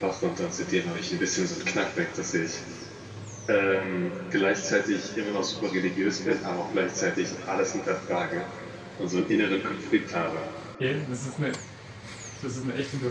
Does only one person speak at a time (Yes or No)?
Yes